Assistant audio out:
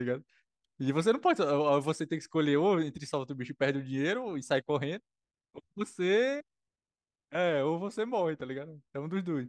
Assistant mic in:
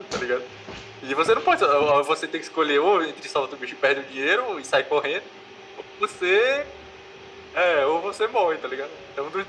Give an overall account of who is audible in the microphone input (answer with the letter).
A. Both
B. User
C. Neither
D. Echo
D